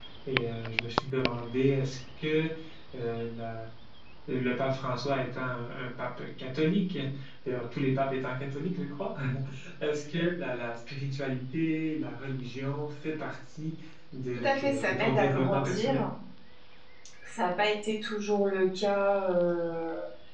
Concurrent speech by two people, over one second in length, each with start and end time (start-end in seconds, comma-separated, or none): 14.4-16.1